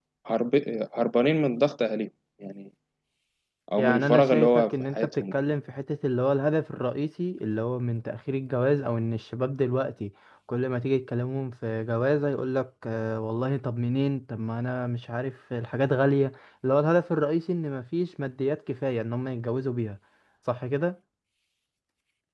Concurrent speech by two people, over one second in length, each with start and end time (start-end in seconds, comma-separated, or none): 3.8-5.3